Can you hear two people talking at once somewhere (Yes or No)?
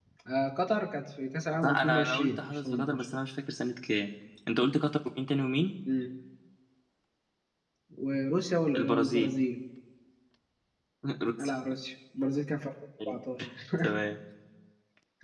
Yes